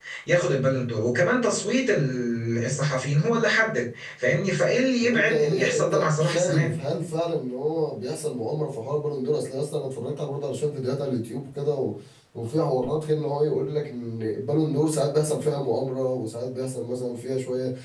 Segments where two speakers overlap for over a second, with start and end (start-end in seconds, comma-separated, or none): 5.0-6.7